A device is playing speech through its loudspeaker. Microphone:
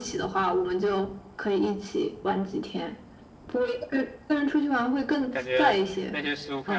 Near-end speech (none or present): present